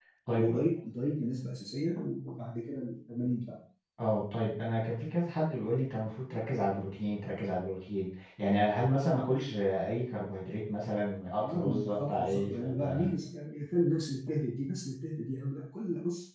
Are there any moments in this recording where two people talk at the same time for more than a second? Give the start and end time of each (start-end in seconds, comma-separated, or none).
11.4-13.1